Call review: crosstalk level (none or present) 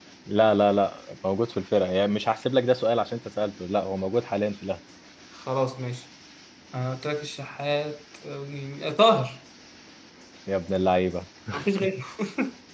none